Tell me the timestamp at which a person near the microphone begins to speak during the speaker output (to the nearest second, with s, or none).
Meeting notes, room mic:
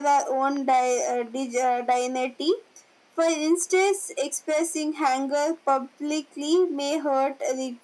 none